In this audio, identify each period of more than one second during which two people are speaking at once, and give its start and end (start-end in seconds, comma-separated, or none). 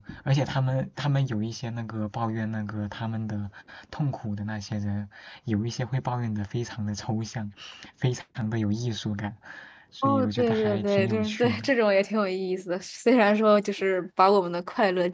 10.0-11.6